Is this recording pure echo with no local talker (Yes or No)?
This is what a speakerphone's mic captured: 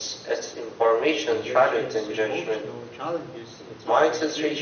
No